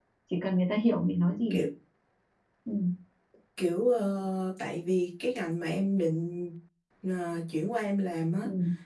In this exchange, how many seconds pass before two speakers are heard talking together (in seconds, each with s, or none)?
none